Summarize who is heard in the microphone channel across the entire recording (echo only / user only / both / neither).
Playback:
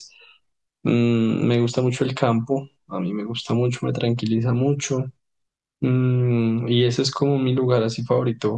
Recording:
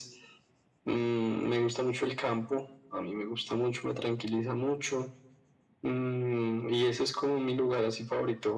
echo only